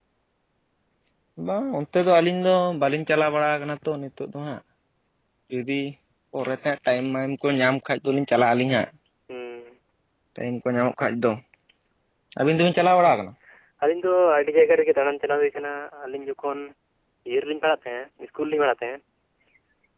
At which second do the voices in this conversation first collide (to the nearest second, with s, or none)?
none